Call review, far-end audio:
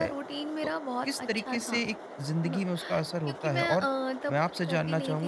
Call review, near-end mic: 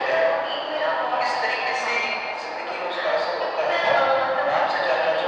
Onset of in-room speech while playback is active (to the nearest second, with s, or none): none